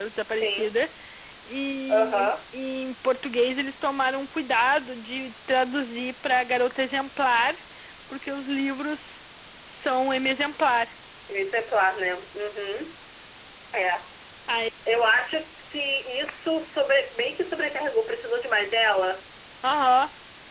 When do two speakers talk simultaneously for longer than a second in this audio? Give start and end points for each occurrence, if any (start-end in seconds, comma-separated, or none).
none